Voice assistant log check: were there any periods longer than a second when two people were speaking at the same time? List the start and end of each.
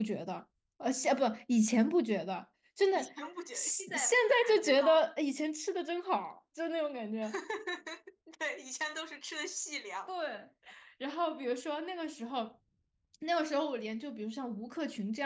3.5-5.0

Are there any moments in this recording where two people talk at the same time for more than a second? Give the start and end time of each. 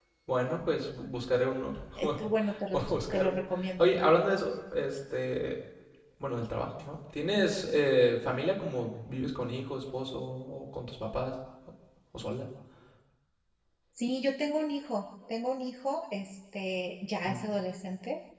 1.9-3.4

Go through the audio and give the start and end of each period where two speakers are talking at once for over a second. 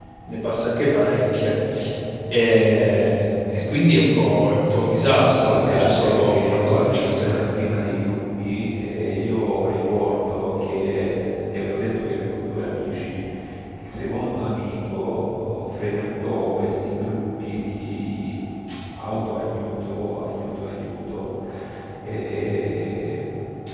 5.4-7.4

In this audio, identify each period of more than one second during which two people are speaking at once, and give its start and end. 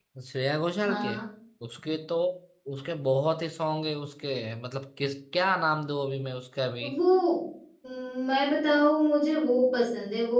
none

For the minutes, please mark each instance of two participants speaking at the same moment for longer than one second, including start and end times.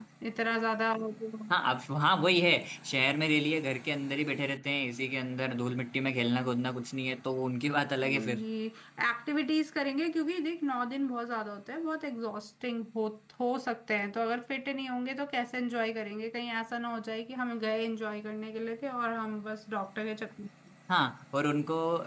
none

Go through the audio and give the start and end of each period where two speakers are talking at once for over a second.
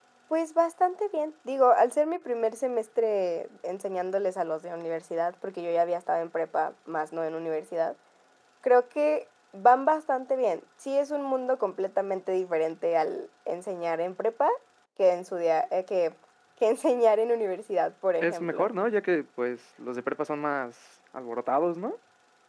none

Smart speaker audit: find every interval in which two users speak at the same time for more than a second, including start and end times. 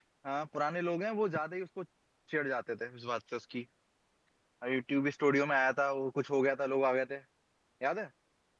none

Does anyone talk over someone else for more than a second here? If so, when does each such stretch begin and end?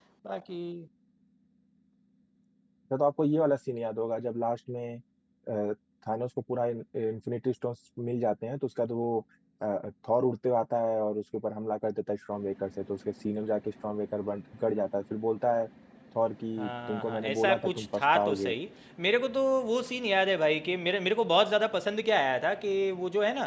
16.6-18.5

